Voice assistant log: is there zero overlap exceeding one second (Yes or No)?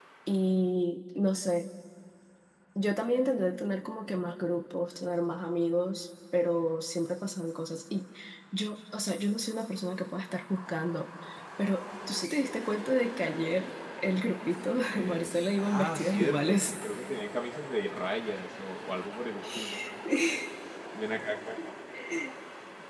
No